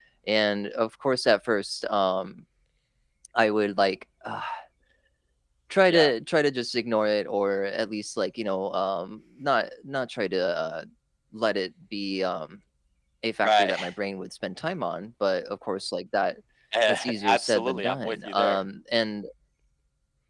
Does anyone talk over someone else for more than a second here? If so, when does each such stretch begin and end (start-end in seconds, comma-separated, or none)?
16.9-18.6